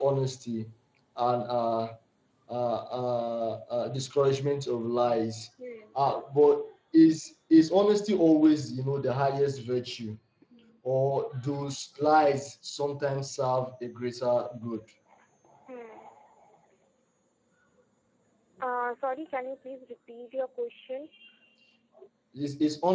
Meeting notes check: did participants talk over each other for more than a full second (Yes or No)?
No